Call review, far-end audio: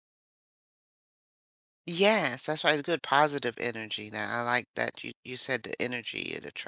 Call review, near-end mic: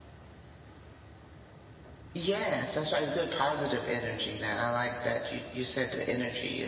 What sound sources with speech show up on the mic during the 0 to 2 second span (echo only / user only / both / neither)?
neither